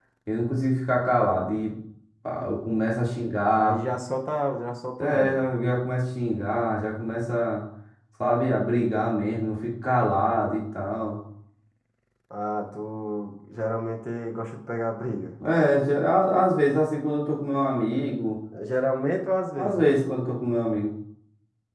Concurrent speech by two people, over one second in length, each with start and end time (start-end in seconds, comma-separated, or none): none